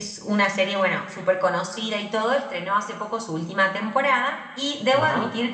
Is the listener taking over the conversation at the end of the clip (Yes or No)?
No